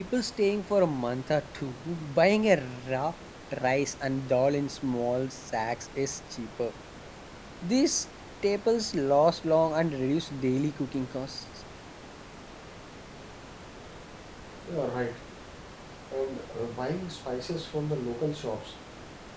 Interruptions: none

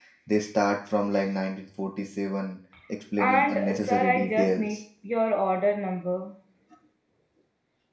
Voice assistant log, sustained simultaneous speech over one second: present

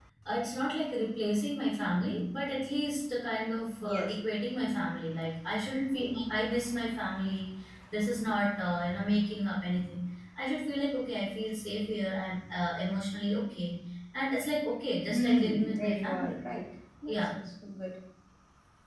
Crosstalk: present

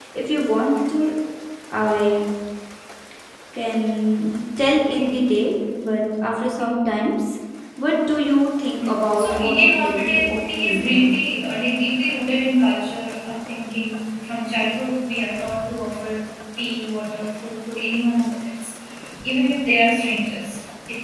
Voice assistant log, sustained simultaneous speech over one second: present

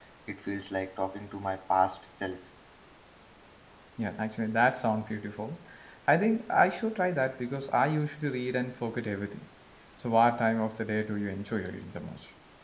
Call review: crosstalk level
none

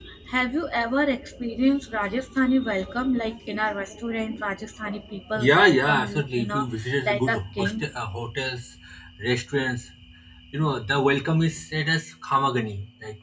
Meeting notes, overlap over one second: present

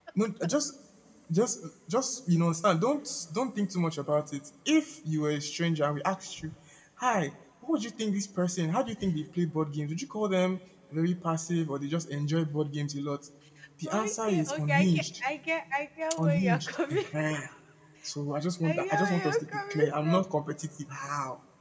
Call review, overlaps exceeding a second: present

